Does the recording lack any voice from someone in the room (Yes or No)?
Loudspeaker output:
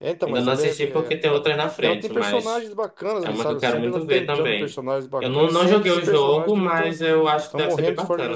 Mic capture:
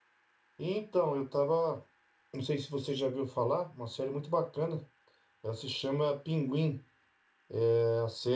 No